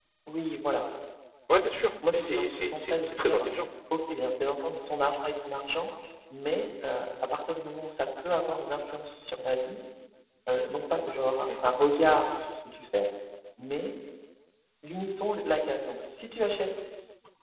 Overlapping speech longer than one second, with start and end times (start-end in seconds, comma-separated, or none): 2.1-3.5